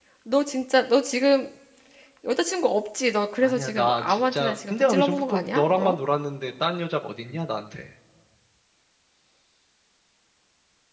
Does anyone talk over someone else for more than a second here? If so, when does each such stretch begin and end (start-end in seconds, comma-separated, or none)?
3.4-6.0